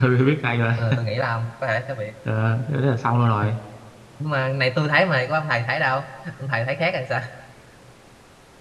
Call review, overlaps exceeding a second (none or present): none